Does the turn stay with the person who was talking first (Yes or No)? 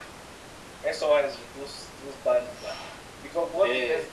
Yes